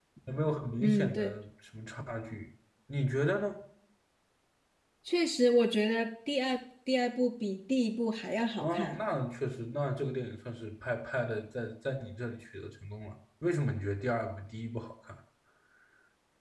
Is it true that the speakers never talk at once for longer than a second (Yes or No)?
Yes